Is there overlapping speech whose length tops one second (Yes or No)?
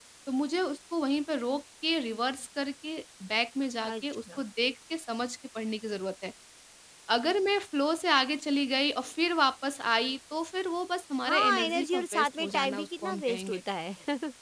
Yes